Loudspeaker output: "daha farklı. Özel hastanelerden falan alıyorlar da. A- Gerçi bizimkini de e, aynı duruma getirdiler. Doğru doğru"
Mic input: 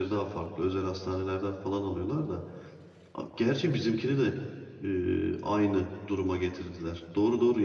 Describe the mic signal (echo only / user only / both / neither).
echo only